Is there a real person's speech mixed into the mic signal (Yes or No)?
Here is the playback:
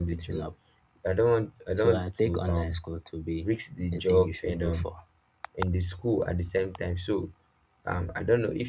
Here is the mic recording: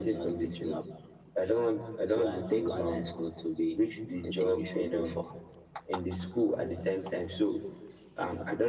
No